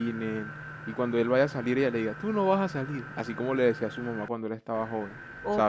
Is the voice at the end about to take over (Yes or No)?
Yes